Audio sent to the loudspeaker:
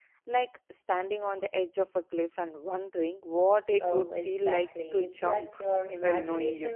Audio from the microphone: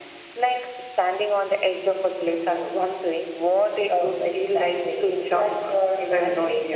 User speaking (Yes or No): No